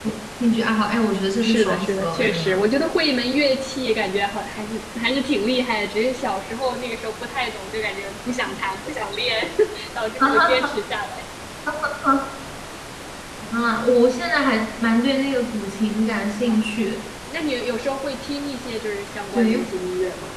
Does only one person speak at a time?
No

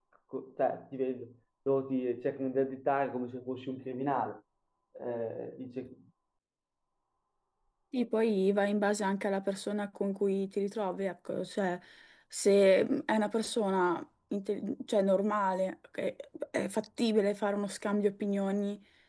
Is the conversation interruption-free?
Yes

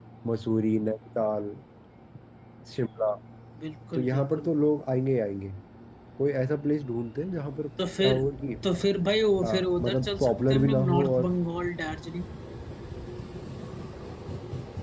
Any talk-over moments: Yes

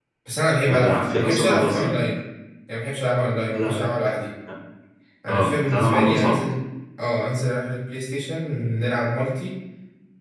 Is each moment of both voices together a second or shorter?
No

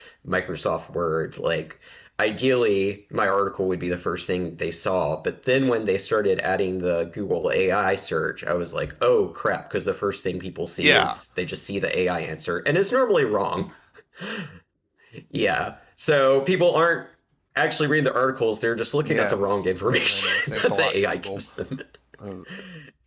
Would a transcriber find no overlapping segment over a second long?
No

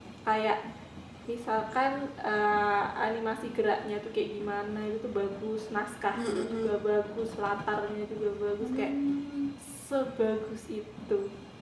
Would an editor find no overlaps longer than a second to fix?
Yes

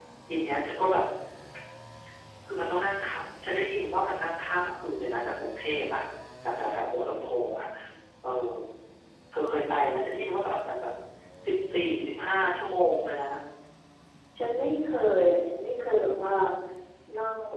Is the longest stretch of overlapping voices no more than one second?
Yes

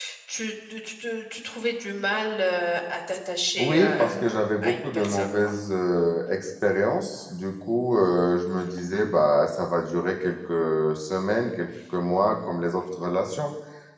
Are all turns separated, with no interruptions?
No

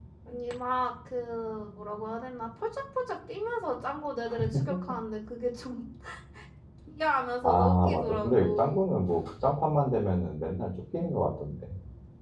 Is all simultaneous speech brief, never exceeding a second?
No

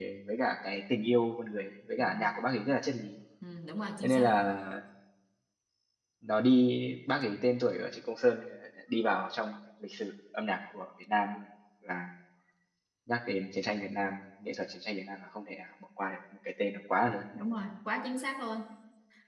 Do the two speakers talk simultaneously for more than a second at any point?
No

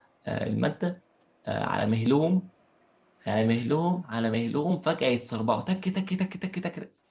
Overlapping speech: No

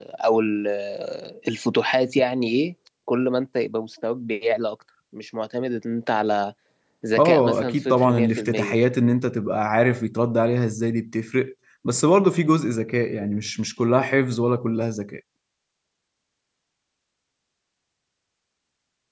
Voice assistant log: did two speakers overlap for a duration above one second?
Yes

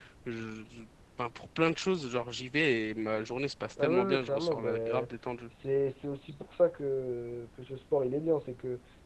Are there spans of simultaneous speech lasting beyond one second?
Yes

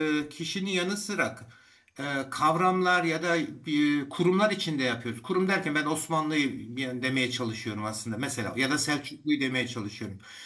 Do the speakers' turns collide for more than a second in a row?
No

